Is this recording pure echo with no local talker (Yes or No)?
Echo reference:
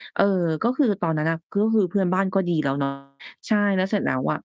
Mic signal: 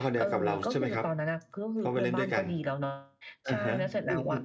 No